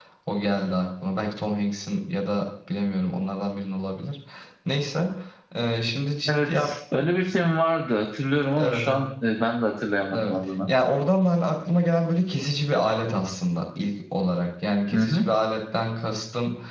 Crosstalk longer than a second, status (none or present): none